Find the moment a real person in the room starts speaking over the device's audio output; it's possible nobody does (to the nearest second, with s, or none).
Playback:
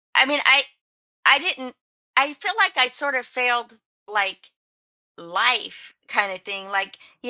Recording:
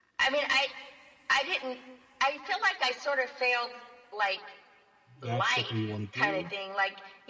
5 s